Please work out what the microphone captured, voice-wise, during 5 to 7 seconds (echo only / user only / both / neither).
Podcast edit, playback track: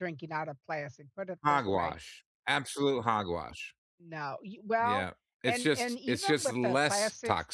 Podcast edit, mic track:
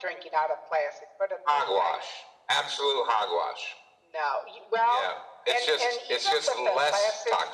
echo only